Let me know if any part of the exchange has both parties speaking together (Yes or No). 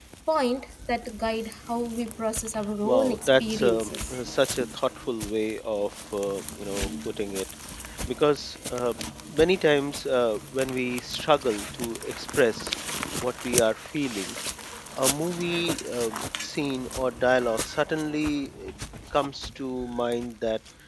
Yes